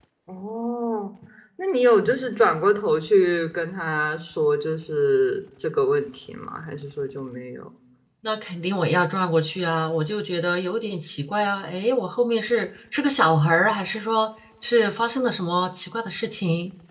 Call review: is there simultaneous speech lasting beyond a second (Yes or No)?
No